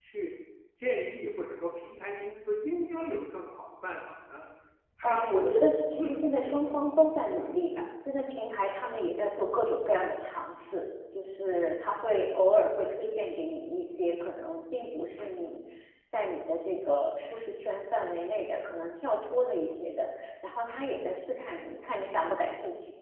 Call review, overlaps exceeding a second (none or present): present